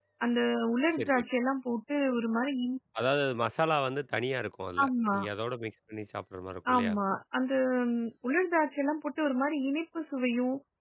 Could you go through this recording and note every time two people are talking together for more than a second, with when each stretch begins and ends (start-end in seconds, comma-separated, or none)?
none